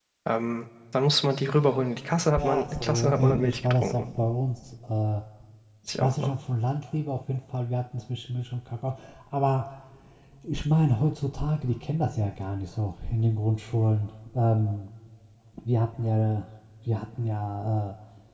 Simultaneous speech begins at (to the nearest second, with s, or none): 2 s